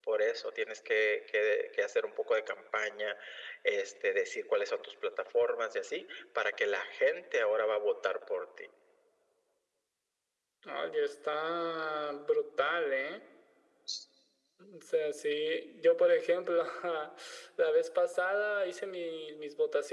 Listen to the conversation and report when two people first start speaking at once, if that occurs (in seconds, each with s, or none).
none